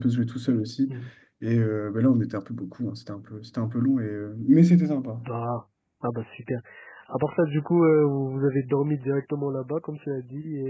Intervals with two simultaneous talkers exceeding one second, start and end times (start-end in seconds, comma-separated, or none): none